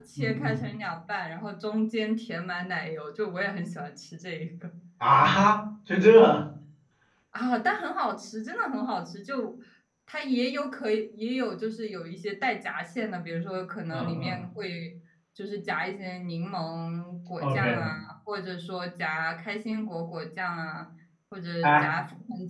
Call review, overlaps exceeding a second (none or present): none